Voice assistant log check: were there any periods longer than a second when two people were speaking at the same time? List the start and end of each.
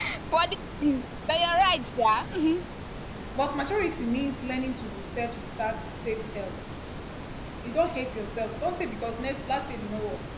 none

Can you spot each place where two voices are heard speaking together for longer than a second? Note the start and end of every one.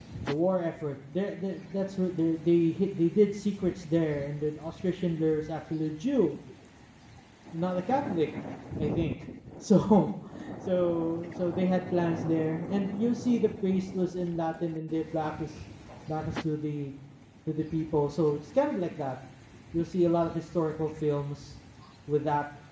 none

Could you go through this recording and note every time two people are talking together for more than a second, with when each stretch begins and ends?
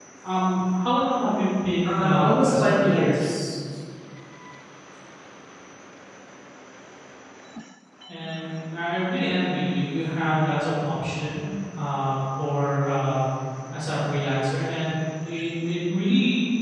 1.8-3.3

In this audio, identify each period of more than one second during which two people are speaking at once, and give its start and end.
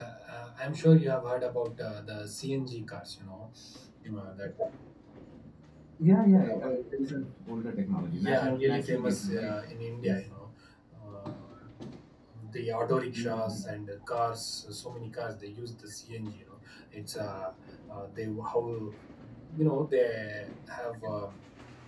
8.1-9.5

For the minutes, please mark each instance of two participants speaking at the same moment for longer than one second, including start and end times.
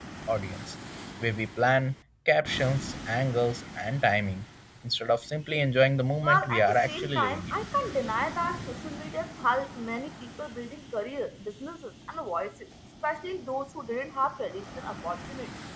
6.2-7.6

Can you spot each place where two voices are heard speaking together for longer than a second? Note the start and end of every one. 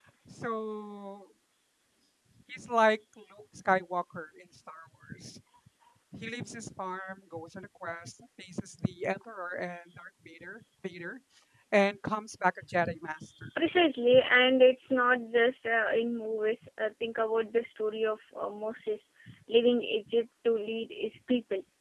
none

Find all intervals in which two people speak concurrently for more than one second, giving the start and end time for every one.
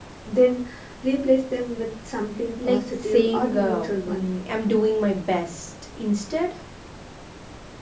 2.6-4.3

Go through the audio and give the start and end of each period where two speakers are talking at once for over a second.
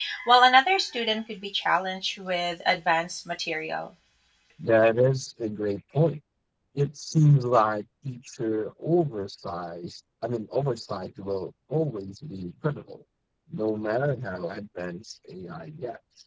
none

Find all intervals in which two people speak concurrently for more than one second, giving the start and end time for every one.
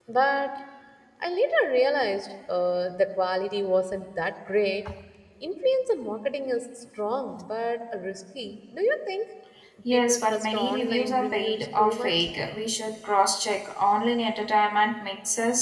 9.9-12.2

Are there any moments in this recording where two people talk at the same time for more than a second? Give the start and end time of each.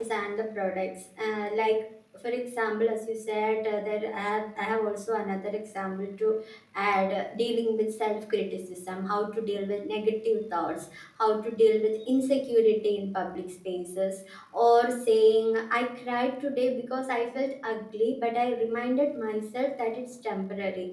none

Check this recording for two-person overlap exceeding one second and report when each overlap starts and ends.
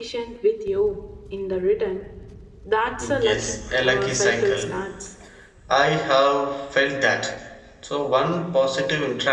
3.2-4.7

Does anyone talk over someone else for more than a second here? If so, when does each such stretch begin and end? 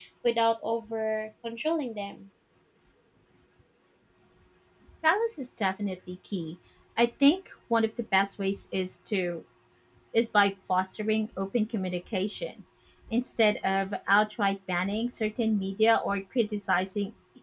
none

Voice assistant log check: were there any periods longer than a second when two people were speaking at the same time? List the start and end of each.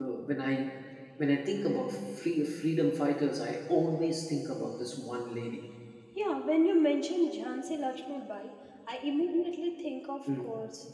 none

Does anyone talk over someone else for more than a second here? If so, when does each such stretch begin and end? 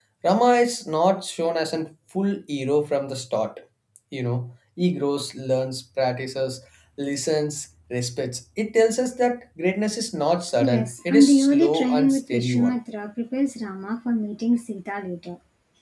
10.6-12.8

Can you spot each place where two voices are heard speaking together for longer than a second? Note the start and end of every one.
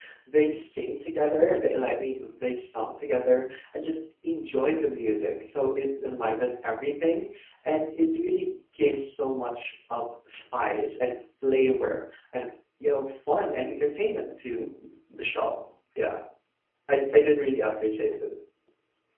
none

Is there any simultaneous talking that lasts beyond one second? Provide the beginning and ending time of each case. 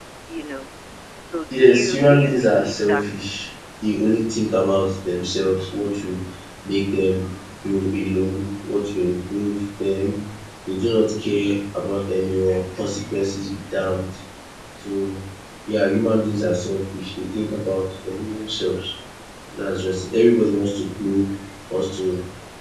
1.5-3.3

